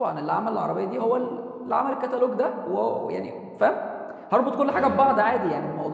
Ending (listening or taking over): listening